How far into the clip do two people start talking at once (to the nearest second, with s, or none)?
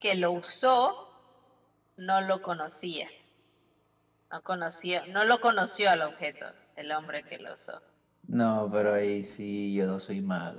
none